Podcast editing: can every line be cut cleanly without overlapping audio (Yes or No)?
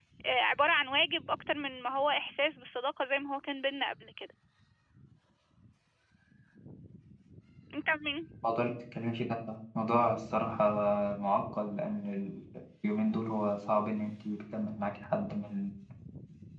Yes